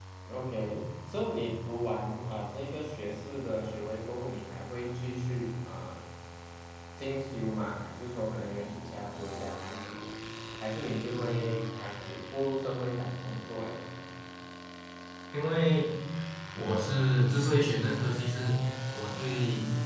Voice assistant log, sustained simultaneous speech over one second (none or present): none